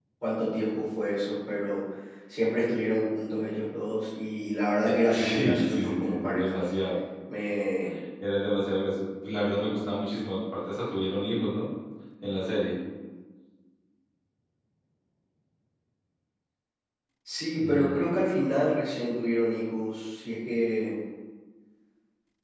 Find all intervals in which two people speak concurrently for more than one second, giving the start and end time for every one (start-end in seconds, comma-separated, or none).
4.8-6.6